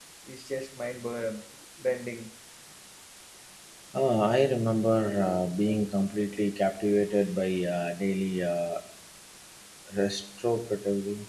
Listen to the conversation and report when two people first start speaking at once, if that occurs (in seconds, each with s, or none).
none